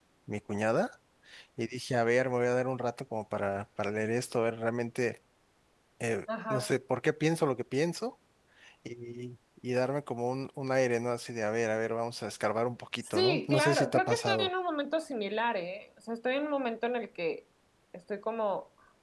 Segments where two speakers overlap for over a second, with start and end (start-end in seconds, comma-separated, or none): 13.1-14.5